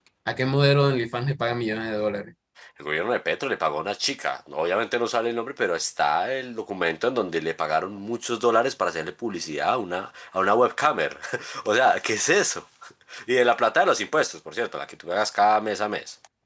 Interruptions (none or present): none